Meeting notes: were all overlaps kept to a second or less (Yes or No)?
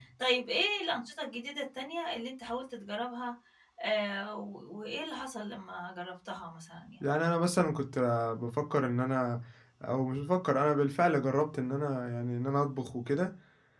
Yes